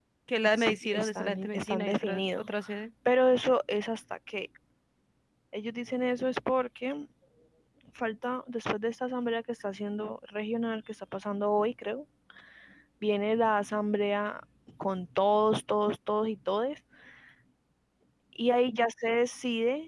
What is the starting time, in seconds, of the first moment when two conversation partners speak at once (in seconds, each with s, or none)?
0.6 s